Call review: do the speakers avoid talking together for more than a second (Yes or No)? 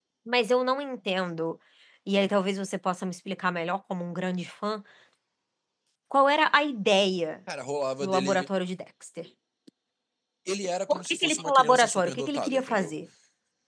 No